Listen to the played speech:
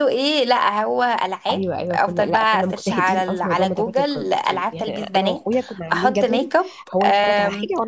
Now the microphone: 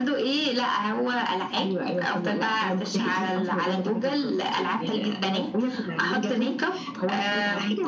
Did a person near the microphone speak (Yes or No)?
No